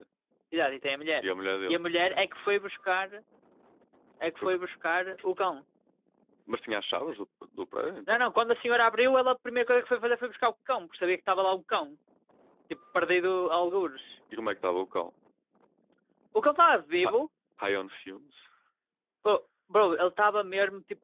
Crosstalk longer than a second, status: none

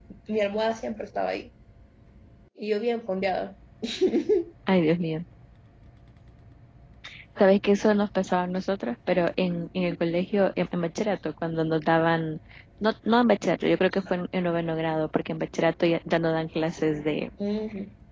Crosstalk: none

